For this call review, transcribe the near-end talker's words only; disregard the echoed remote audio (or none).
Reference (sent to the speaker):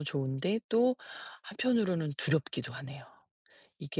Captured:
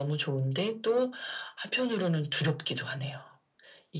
none